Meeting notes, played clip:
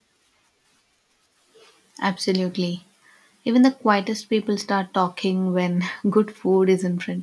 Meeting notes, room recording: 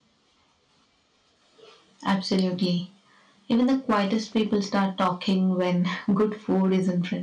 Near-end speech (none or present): none